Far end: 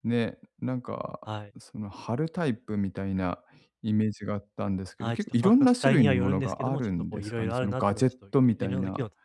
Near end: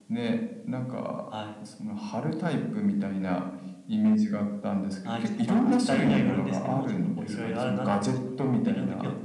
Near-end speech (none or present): none